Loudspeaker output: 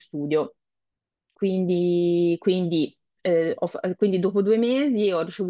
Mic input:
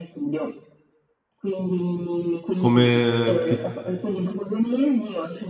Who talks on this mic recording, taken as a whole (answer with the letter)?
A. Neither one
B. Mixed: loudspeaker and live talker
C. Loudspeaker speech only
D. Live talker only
B